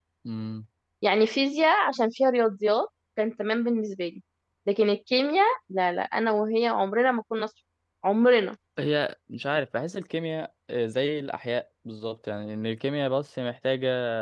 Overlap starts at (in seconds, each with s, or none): none